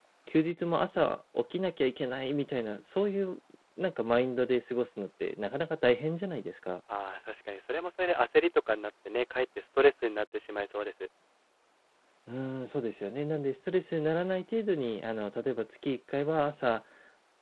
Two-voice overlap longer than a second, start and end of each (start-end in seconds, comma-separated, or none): none